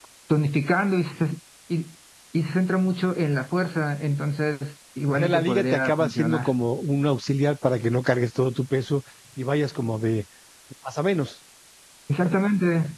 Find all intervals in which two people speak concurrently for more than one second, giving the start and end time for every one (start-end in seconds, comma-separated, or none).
5.1-6.5